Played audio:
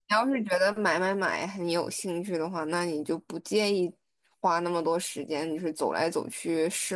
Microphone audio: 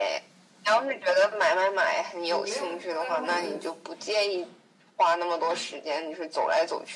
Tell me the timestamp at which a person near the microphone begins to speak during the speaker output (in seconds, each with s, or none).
2.3 s